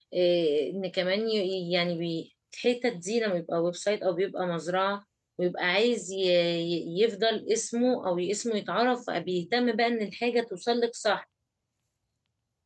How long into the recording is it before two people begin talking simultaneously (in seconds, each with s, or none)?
none